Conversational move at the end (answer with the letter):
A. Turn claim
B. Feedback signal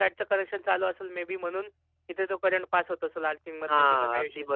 A